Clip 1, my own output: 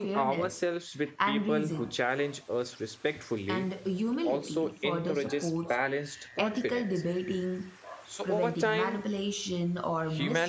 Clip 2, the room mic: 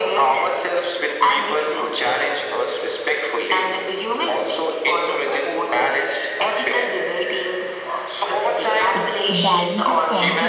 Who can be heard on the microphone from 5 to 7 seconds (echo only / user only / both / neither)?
echo only